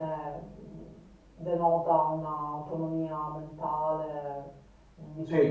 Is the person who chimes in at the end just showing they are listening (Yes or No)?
Yes